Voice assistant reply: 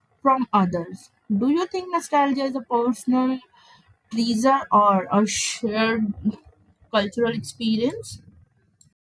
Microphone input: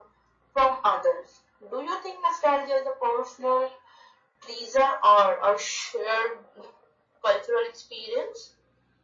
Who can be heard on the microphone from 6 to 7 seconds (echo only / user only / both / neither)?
echo only